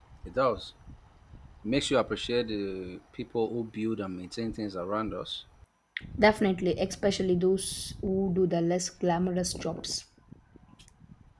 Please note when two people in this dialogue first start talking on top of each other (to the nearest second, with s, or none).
none